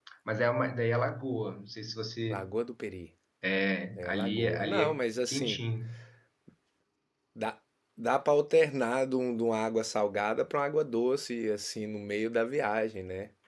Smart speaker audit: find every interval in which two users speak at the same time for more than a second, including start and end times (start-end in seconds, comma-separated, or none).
4.0-5.6